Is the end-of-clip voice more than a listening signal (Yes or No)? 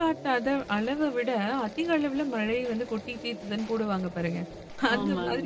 No